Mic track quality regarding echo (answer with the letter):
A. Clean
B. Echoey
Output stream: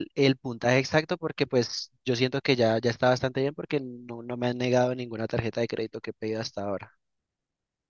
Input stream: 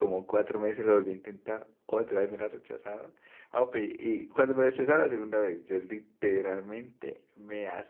A